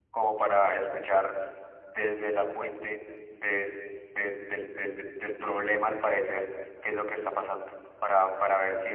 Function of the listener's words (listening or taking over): listening